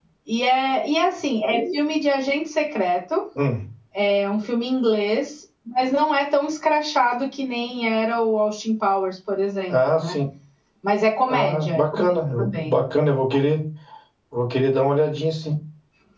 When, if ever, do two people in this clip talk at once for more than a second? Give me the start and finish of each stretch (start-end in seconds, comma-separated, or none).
11.2-12.7